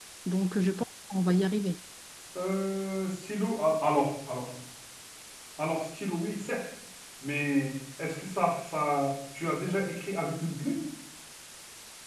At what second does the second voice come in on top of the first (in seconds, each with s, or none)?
none